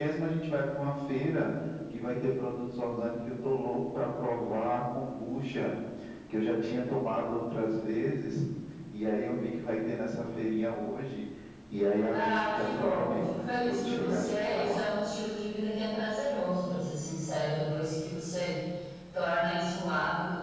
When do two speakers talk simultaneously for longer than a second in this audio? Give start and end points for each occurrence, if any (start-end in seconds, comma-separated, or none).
12.1-14.8